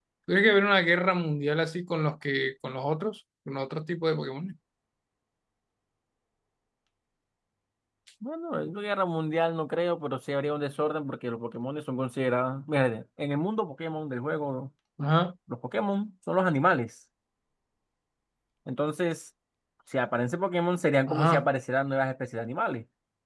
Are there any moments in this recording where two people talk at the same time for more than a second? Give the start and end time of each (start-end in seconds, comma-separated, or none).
none